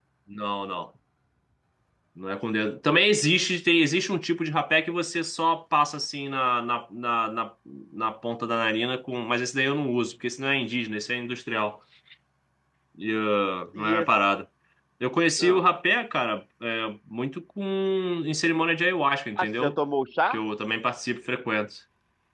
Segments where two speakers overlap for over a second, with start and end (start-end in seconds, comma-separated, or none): none